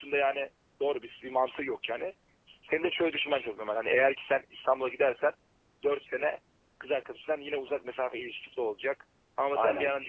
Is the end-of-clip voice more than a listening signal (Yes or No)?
Yes